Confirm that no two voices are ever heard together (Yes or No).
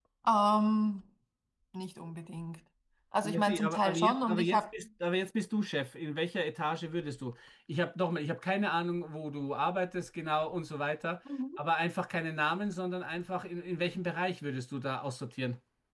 No